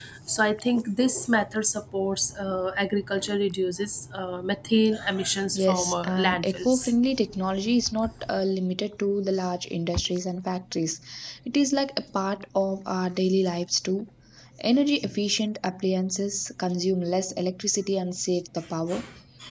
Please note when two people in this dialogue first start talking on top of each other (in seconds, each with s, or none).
5.5 s